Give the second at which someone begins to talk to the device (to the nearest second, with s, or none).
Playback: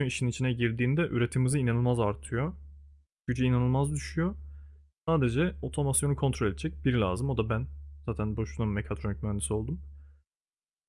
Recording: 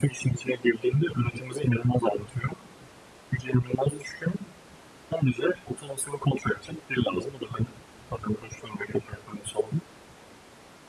none